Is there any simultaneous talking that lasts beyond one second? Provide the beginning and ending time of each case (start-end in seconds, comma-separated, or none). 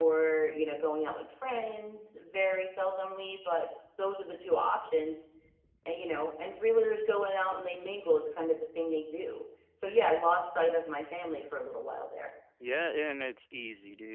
none